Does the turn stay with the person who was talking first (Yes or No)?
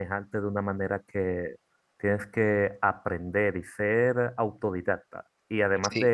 Yes